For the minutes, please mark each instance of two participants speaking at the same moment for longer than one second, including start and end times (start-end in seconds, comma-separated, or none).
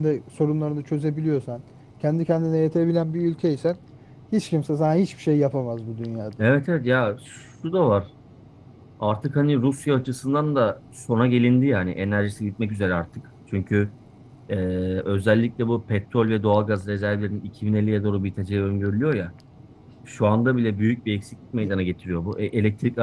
none